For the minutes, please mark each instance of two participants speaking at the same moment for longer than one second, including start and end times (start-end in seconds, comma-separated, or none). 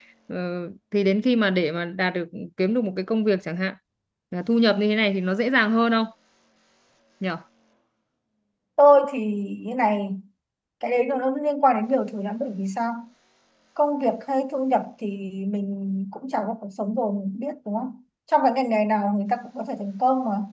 none